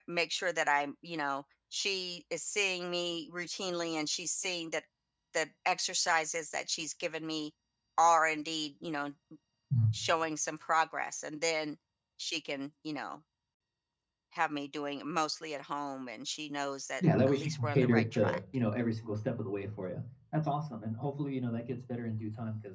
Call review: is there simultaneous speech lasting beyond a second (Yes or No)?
Yes